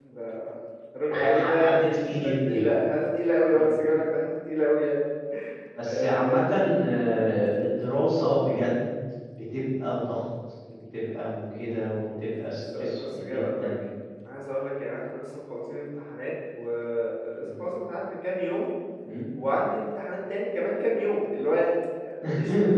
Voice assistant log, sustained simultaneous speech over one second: present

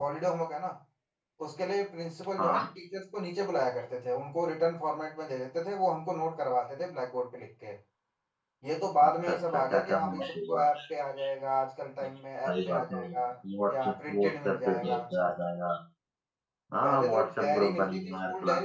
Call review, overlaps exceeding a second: present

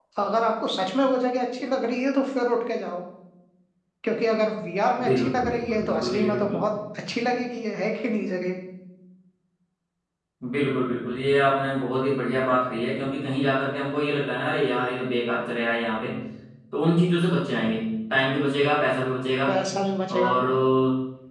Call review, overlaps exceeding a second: present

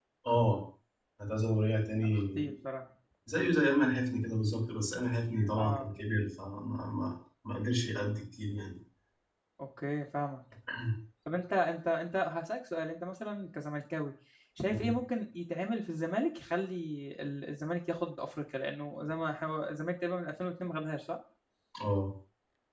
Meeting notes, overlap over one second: none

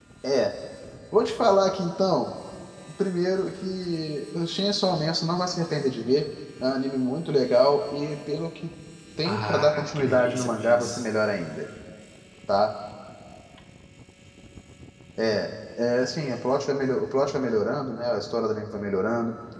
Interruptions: present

